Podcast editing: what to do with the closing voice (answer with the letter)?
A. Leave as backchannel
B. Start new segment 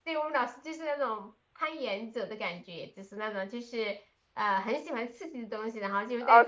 B